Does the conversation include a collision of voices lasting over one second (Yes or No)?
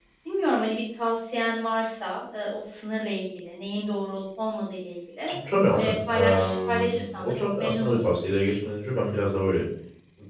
Yes